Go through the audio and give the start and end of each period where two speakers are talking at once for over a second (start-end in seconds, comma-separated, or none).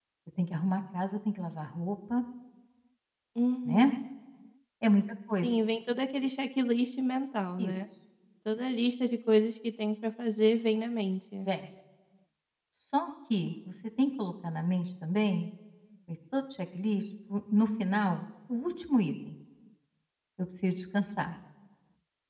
none